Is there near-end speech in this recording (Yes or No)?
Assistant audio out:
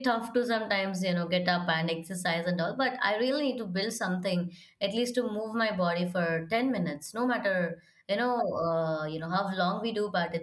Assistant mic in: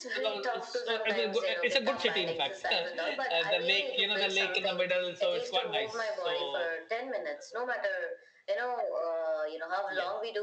Yes